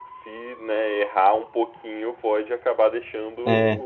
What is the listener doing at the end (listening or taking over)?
taking over